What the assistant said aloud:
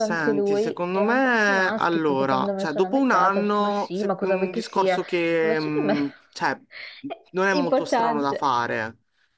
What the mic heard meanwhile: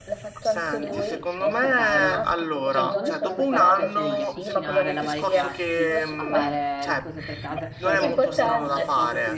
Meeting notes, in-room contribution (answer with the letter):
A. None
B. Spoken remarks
B